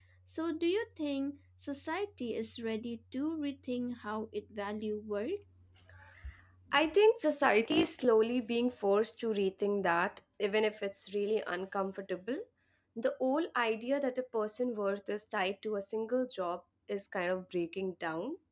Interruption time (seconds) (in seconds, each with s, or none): none